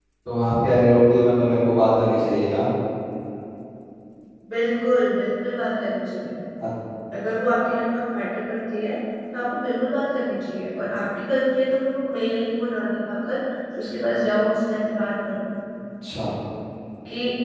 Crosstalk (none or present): none